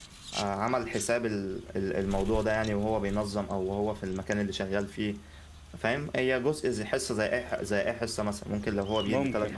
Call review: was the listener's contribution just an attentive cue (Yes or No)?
Yes